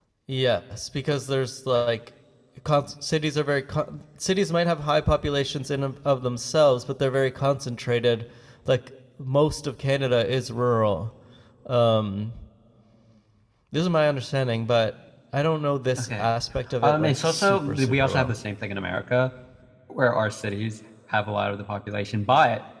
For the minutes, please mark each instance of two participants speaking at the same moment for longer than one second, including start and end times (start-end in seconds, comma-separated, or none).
16.8-18.3